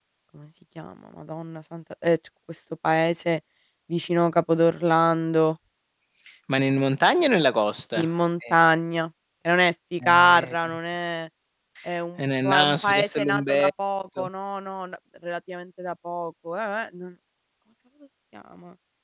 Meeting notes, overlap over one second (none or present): present